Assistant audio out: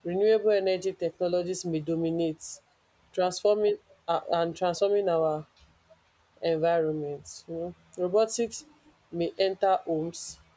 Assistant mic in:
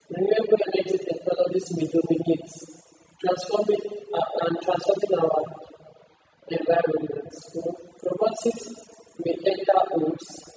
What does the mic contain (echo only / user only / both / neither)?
echo only